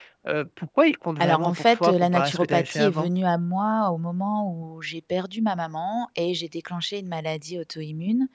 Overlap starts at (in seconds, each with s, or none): 1.2 s